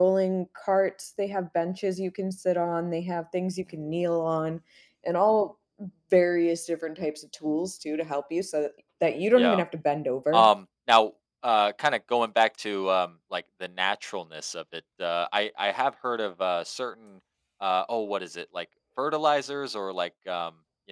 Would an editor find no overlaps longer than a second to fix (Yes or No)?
Yes